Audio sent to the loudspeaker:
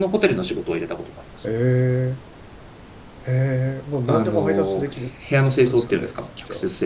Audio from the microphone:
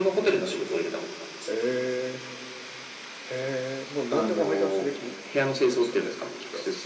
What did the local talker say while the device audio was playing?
none

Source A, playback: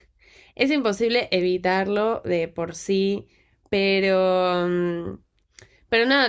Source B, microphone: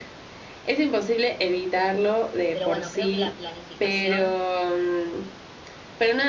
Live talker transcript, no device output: Pero bueno, creo que la planificación

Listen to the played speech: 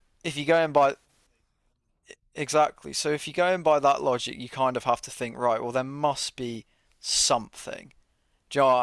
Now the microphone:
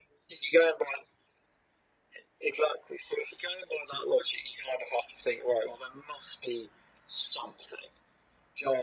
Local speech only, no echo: none

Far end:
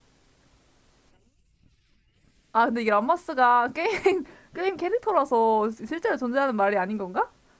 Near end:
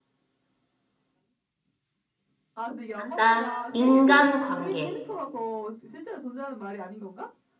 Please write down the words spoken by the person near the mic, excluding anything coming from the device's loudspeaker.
한다. 인간관계.

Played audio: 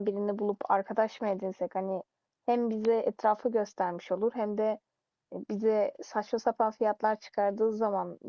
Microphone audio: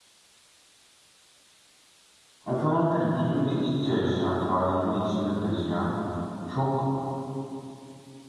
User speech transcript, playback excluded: Athena kültürüyle iç içe yaşayan, tarihini içinde taşıyan çok

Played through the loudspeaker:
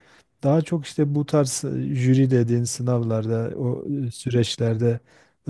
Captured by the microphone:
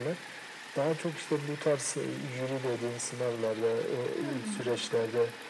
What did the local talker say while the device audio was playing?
Hmm.

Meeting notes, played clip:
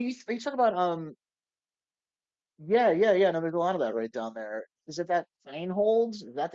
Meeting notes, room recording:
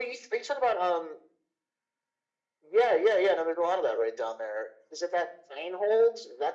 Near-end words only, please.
none

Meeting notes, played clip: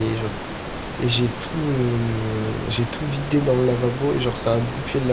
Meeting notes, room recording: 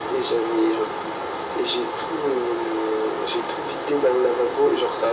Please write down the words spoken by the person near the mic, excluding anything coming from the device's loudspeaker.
none

